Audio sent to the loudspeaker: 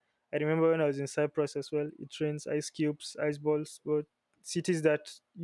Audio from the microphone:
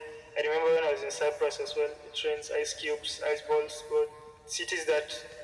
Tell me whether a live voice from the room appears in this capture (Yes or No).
No